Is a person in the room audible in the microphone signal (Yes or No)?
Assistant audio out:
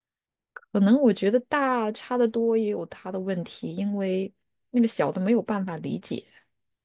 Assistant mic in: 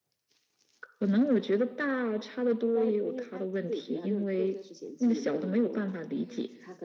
Yes